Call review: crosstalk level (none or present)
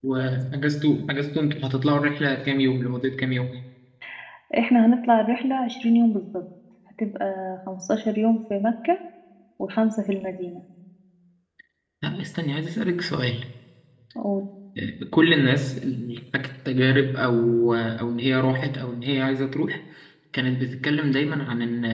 none